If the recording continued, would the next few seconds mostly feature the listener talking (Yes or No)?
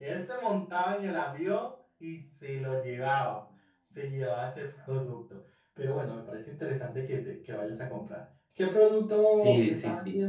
Yes